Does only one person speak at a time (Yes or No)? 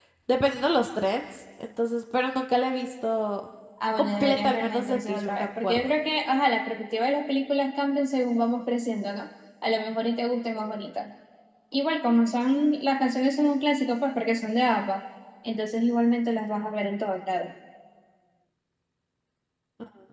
No